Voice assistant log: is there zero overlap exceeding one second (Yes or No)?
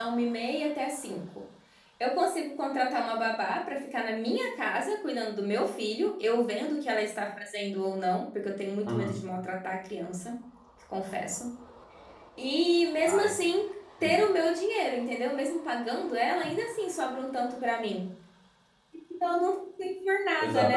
Yes